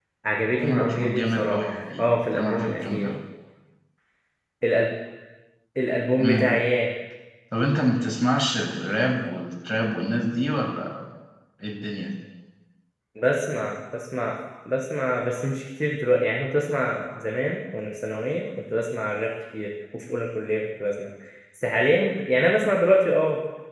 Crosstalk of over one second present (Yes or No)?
Yes